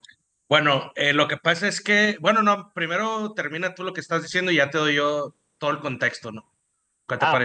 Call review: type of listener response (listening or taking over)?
taking over